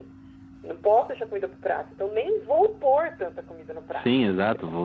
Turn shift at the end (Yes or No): Yes